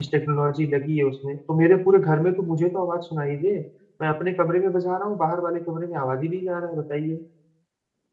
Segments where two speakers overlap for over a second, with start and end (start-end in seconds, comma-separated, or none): none